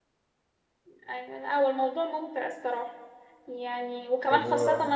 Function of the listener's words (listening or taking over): listening